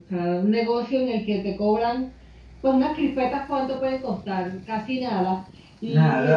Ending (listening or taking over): listening